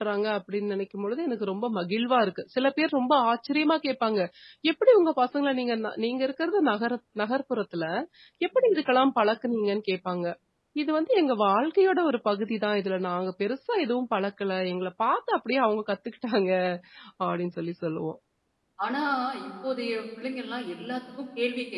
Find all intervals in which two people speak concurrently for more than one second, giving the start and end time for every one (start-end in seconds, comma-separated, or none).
none